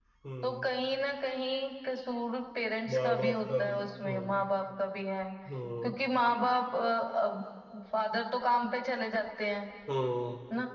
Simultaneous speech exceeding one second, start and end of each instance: 2.9-4.4

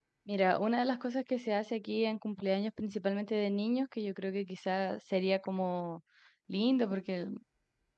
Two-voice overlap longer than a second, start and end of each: none

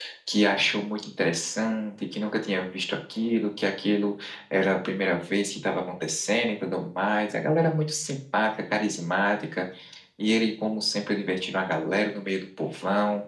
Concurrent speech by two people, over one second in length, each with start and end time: none

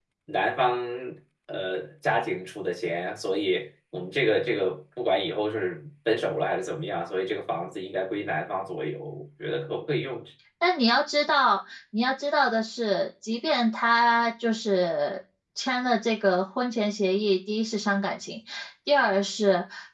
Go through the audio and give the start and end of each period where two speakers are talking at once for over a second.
none

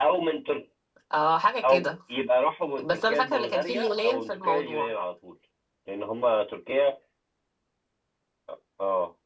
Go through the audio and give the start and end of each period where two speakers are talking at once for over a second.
2.8-4.9

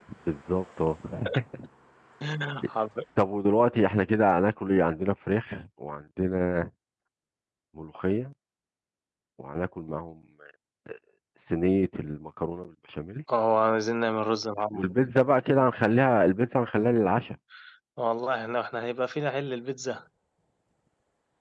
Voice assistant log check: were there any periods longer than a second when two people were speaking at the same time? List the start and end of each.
none

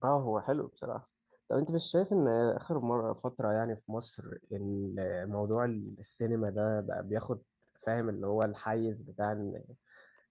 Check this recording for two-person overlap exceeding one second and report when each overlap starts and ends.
none

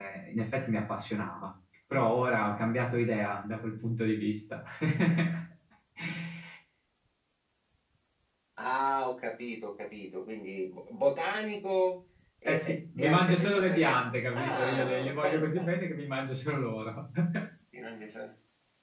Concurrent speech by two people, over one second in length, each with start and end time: 12.4-15.7

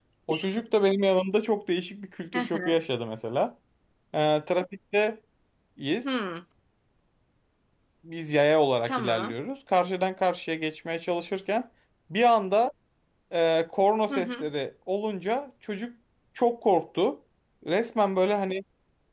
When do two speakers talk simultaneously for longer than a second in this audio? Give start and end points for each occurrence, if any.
none

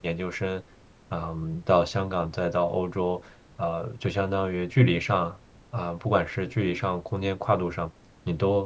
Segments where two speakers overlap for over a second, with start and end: none

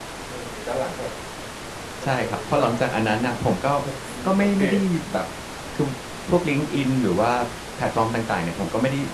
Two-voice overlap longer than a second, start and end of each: 2.0-3.4

